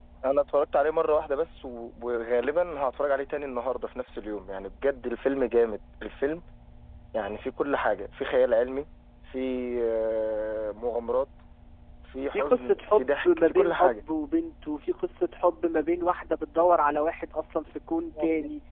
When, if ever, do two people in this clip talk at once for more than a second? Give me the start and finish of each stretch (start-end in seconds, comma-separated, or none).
12.3-14.0